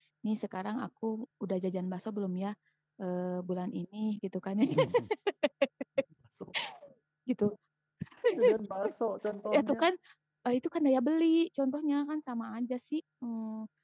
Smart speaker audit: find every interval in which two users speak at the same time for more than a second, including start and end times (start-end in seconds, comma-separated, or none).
none